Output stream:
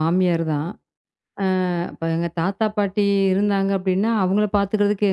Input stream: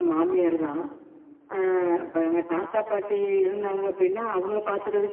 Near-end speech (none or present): none